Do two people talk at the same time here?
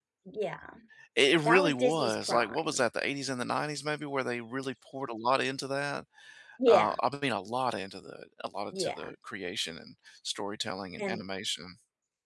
Yes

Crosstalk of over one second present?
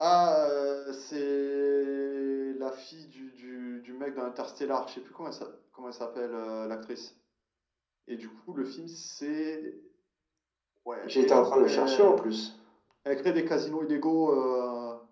Yes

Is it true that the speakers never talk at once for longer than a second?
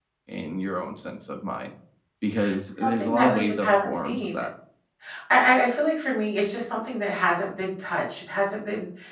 No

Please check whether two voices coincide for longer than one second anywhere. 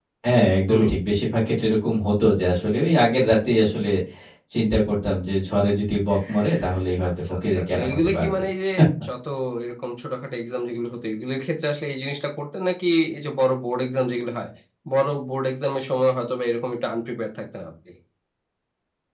Yes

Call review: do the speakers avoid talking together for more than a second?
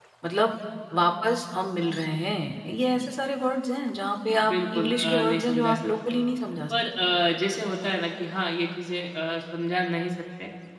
No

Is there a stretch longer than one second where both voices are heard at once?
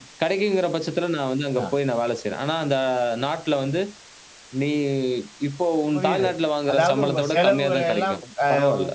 Yes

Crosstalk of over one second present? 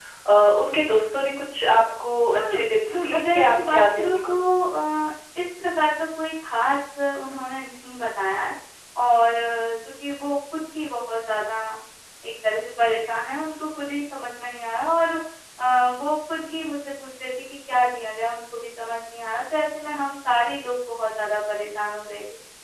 Yes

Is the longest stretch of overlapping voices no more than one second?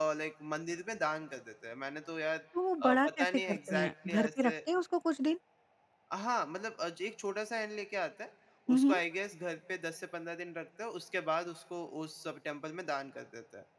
No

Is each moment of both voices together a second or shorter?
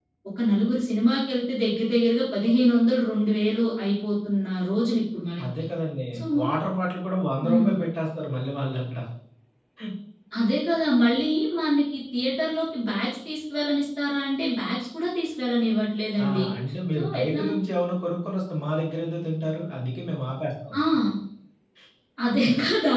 Yes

